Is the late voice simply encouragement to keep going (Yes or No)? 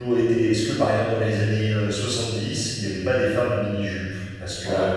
Yes